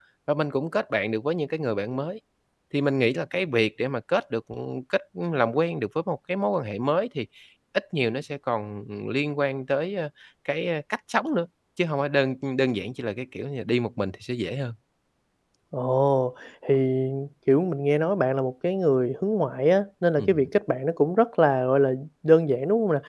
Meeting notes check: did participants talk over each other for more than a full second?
No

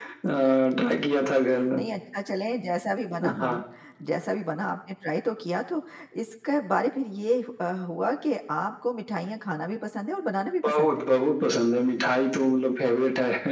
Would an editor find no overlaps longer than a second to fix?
Yes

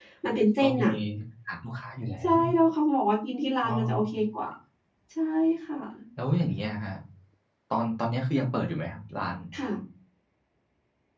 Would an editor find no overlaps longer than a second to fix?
Yes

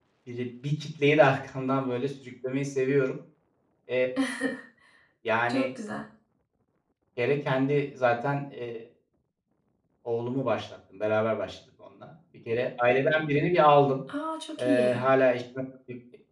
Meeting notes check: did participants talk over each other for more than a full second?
No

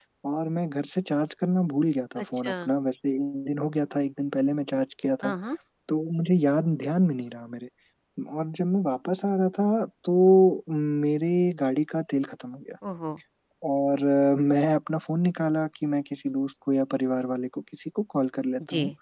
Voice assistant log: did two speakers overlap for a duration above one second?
No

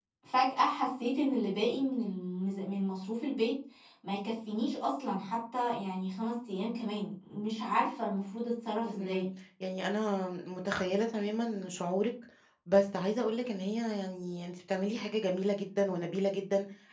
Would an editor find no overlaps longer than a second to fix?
Yes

